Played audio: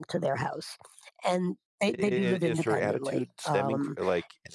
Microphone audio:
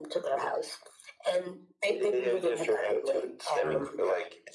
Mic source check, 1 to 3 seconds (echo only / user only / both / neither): echo only